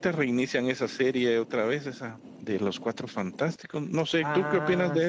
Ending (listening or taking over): taking over